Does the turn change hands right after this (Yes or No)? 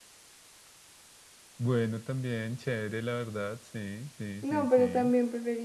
Yes